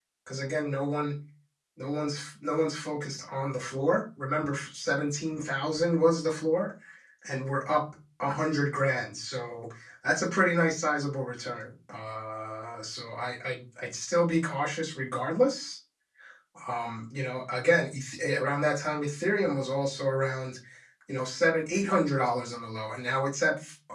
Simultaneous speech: No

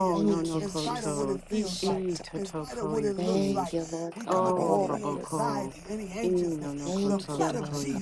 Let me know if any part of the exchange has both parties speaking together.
Yes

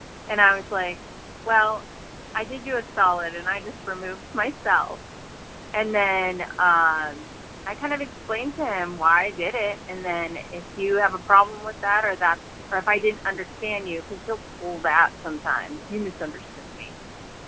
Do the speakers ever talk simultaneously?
No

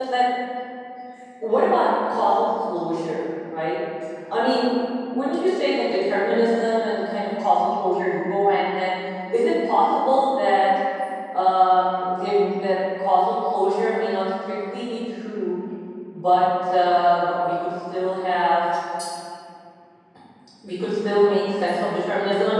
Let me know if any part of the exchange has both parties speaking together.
No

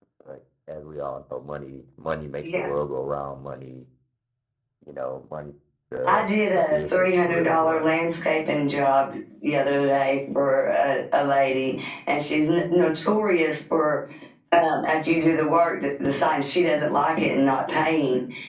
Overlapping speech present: Yes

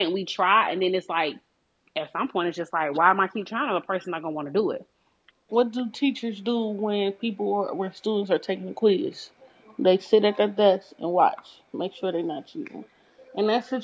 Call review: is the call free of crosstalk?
Yes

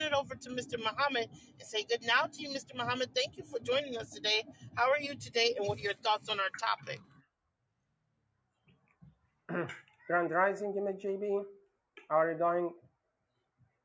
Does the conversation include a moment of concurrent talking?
No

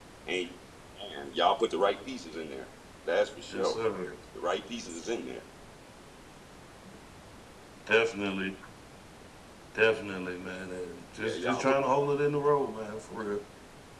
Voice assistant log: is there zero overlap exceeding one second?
Yes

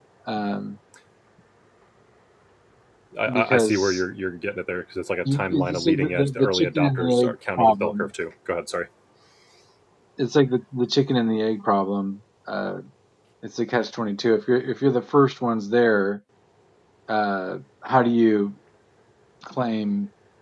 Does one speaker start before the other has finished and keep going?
Yes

